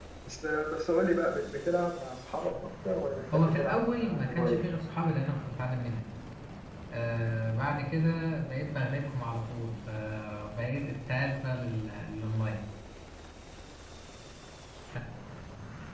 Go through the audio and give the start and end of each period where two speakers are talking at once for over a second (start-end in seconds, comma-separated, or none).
3.3-4.6